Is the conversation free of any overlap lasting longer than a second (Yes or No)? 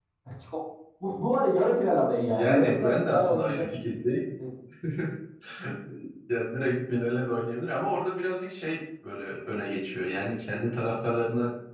No